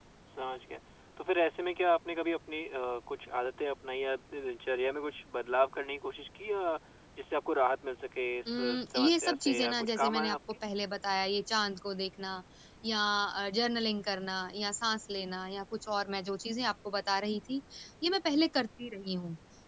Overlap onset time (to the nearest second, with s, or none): 8 s